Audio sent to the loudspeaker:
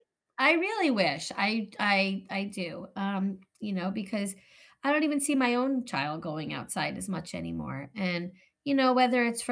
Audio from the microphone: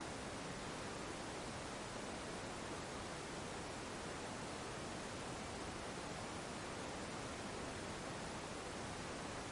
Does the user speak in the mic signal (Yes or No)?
No